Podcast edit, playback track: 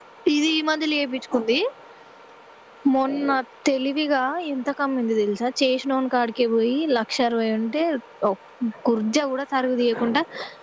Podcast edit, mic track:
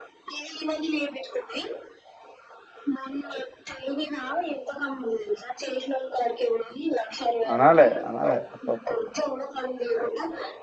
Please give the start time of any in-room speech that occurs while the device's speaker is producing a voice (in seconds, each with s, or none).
7.5 s